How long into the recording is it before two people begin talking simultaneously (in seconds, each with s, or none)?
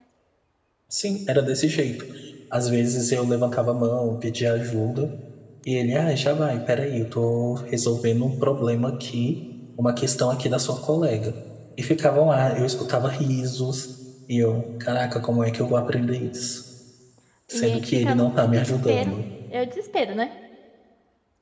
17.5 s